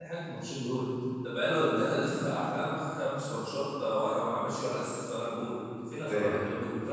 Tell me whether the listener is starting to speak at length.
No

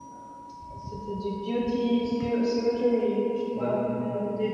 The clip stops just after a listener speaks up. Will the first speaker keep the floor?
Yes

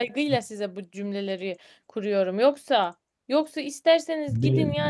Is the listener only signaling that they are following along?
Yes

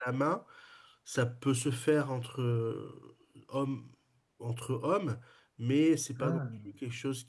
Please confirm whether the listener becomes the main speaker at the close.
No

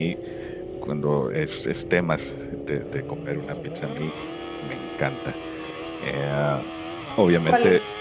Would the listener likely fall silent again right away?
Yes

